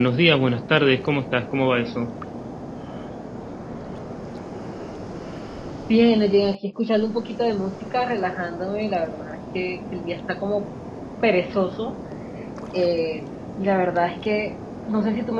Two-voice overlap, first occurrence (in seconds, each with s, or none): none